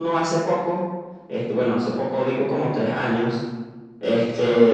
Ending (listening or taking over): listening